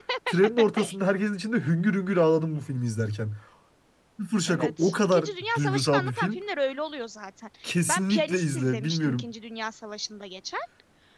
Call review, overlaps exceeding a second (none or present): present